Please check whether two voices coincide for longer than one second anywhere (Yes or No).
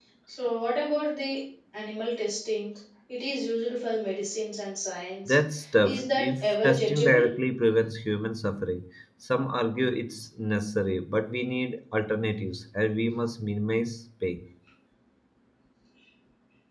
Yes